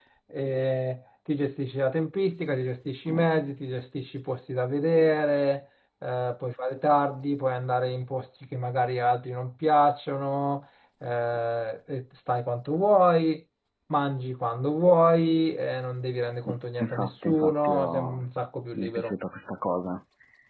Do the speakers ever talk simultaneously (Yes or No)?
Yes